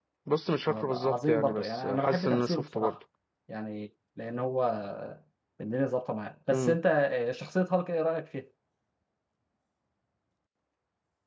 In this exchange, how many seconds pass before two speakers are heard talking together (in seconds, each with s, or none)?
0.7 s